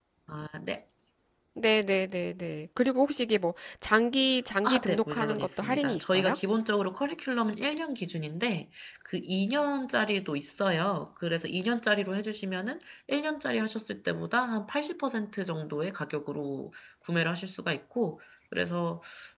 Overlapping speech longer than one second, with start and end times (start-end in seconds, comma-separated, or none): 4.6-6.4